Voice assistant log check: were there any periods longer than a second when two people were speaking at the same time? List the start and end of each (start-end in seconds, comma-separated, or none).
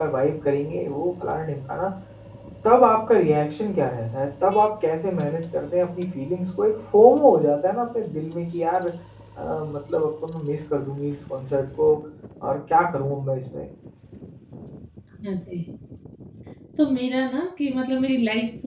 none